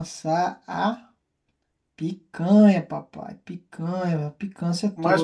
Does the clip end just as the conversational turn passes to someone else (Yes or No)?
Yes